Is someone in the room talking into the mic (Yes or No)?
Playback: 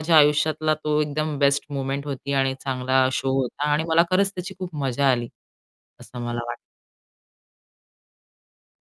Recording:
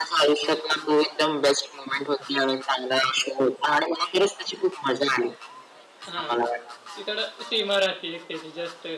Yes